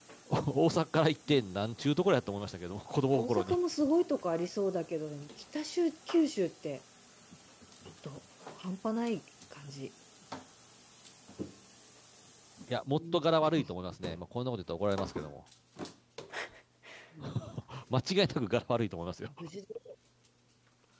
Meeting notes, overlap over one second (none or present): none